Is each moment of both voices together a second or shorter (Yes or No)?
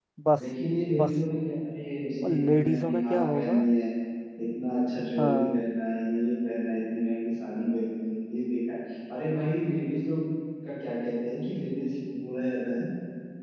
No